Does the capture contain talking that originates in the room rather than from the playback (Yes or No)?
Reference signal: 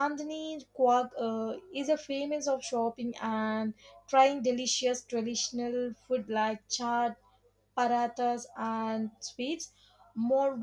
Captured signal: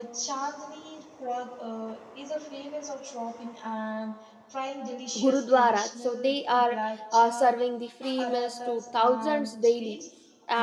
Yes